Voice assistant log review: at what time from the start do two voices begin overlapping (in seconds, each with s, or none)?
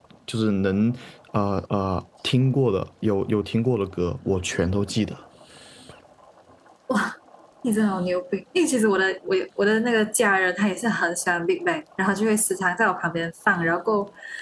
none